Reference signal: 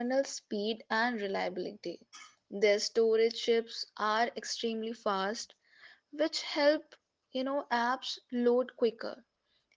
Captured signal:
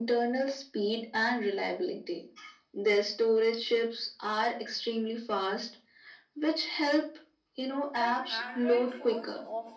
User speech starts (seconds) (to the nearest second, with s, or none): 8 s